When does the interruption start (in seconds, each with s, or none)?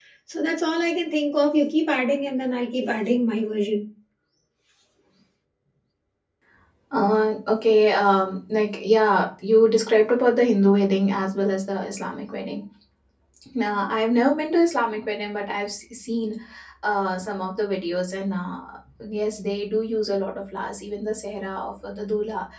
none